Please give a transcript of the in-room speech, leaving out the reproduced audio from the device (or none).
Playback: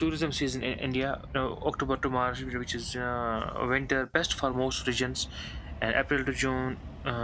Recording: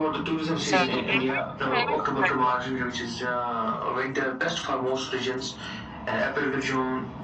So. I'm very grateful.